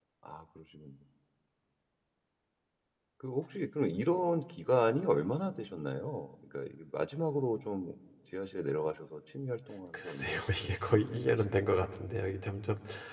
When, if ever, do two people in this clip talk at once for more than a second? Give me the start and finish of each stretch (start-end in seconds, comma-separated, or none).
9.9-11.6